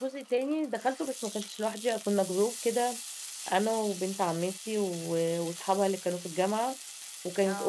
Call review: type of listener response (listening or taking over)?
listening